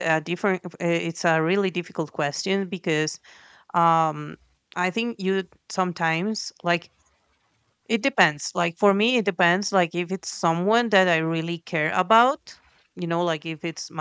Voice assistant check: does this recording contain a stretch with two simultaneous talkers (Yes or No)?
No